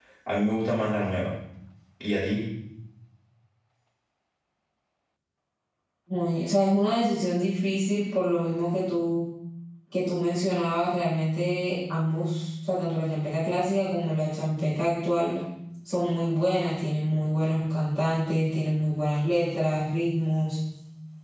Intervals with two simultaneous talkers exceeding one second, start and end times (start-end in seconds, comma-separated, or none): none